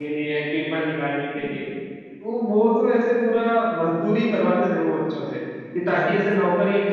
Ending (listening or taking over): listening